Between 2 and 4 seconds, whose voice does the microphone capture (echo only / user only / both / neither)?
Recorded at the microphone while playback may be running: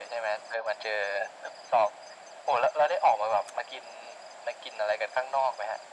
echo only